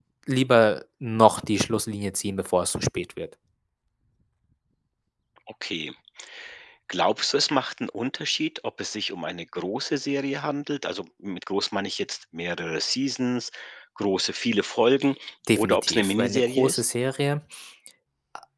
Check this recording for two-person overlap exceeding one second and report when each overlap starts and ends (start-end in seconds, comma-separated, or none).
15.6-16.8